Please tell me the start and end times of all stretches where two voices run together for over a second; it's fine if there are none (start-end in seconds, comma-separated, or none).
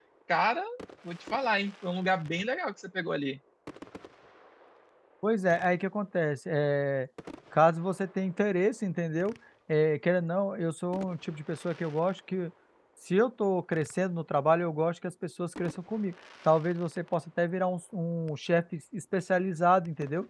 none